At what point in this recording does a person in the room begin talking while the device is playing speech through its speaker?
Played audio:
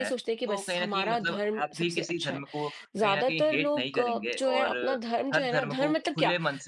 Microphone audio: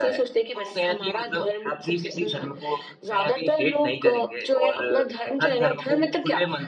2.1 s

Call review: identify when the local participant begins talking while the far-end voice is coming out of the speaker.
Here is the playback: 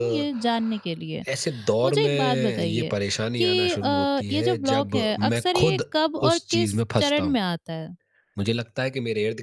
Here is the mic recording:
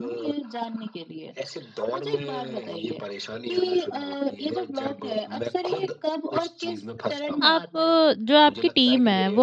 7.4 s

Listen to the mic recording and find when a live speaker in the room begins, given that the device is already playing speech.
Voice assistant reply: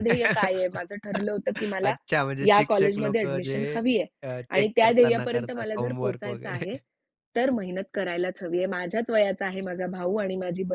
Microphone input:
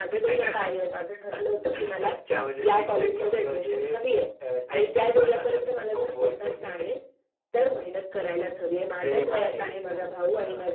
9.0 s

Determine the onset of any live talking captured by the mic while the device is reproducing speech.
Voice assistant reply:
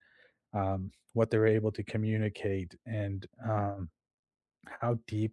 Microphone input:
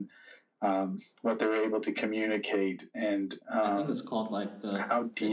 3.6 s

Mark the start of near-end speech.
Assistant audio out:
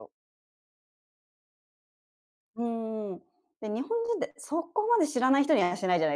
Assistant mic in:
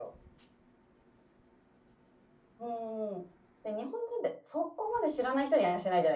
none

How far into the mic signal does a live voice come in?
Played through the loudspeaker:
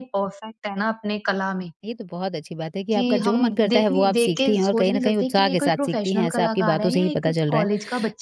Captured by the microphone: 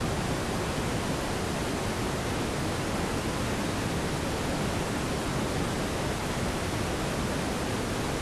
none

